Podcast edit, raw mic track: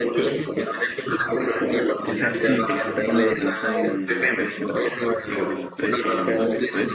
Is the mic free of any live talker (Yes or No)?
No